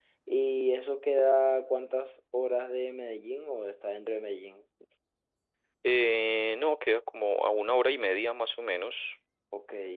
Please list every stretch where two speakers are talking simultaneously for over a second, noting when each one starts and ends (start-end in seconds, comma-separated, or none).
none